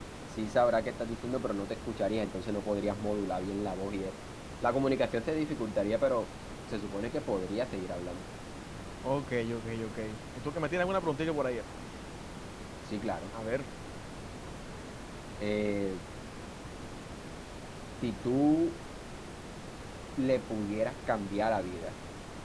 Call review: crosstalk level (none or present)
none